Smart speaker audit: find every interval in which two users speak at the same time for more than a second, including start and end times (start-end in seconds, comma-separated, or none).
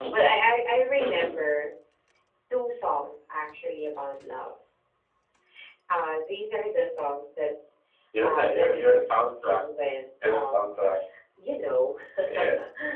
8.2-9.6